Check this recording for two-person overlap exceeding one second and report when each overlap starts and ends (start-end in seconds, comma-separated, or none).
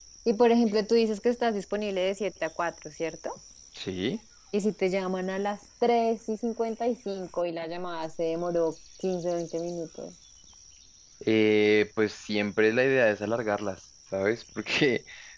none